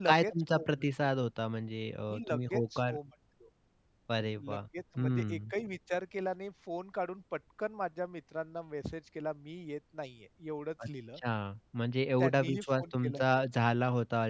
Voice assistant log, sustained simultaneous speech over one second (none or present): present